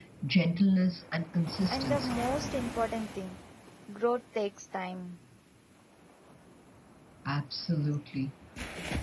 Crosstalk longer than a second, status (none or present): none